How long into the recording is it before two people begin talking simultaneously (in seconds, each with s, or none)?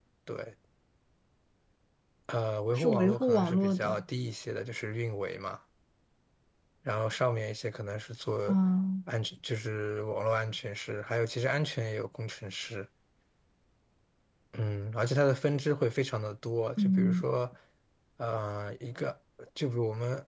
2.8 s